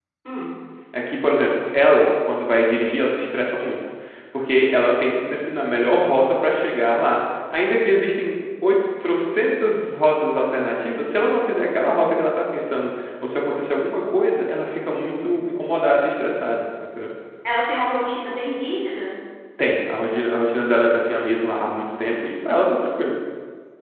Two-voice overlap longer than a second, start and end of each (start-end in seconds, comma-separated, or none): none